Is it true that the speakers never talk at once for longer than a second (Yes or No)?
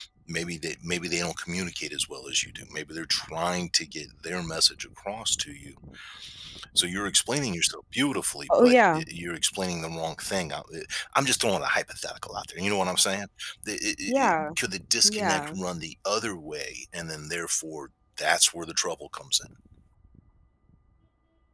Yes